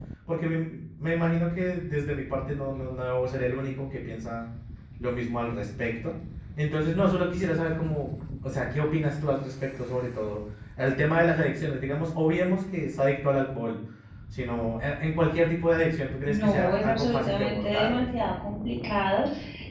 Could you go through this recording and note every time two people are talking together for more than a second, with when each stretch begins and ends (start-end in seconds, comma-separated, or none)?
16.3-18.2